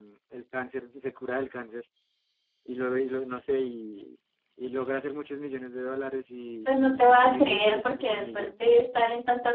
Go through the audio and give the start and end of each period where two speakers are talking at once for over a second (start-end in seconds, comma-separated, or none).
6.7-8.5